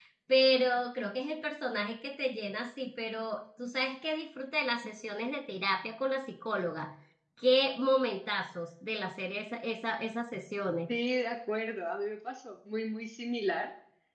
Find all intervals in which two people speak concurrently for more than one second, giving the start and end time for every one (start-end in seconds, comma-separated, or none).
none